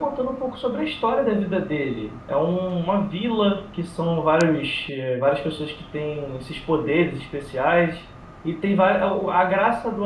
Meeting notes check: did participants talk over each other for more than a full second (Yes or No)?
No